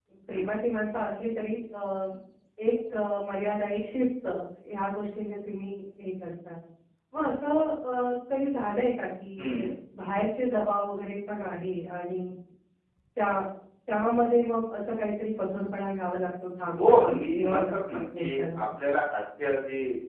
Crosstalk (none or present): present